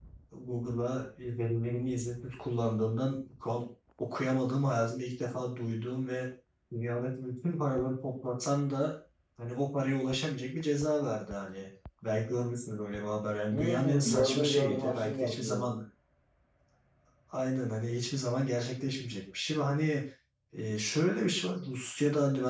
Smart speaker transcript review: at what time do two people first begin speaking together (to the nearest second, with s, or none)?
14 s